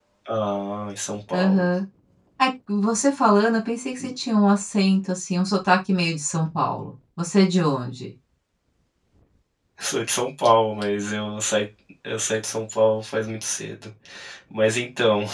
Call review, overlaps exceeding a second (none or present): none